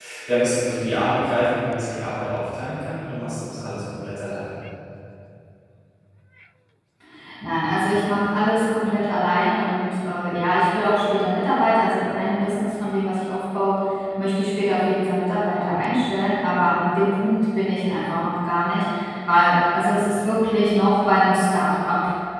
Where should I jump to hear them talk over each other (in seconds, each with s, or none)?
none